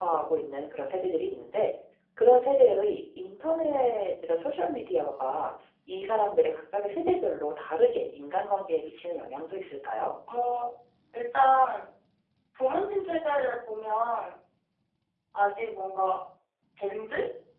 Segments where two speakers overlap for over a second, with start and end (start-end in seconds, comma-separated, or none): none